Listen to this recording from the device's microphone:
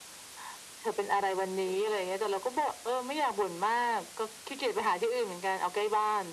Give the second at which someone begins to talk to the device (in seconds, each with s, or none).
none